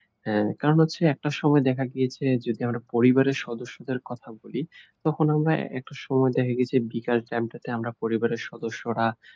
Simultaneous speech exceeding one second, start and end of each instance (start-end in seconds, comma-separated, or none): none